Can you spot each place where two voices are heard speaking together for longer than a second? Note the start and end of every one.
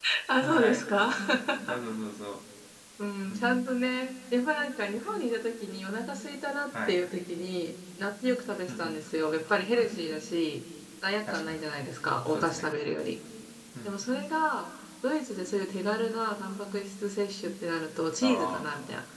none

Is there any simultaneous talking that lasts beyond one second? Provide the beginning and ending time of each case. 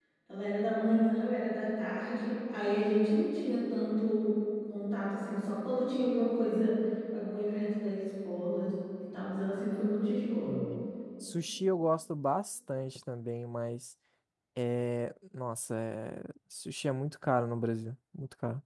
none

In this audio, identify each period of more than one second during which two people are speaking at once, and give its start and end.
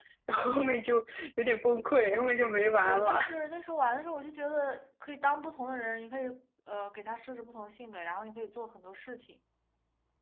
none

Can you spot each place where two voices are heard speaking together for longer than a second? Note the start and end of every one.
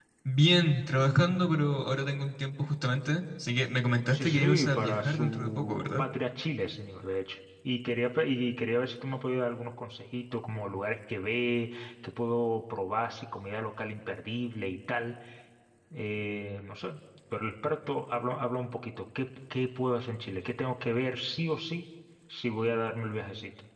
4.1-6.0

